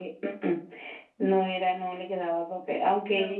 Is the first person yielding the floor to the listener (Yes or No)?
No